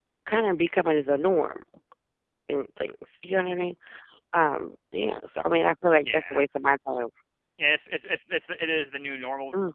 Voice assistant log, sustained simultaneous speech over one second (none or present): none